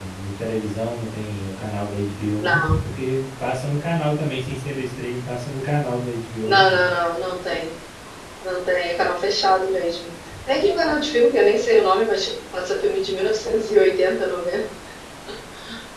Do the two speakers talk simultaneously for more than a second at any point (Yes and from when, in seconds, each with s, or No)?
No